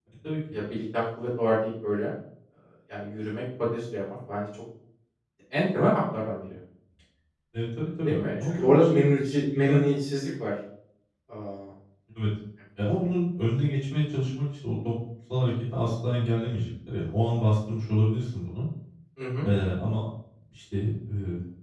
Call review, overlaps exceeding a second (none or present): present